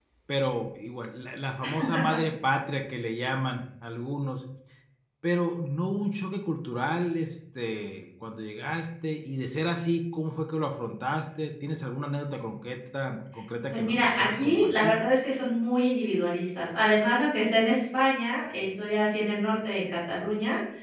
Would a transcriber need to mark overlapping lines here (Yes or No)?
Yes